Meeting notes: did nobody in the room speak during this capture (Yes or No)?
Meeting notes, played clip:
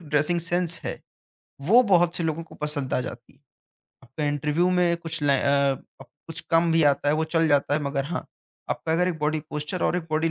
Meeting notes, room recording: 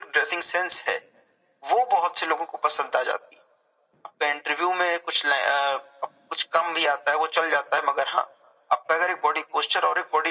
Yes